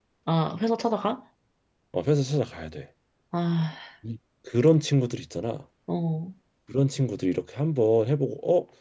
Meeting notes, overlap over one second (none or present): none